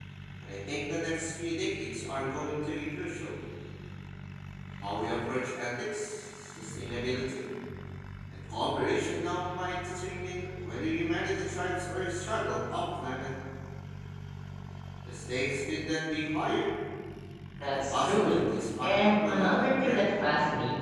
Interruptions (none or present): present